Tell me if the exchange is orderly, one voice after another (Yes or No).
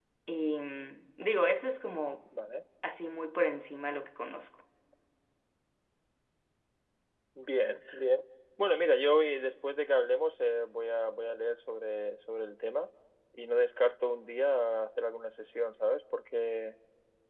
Yes